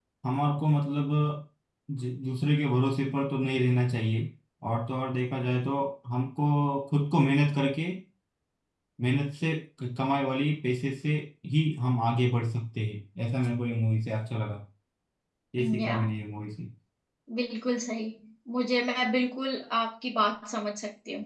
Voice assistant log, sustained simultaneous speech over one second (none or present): none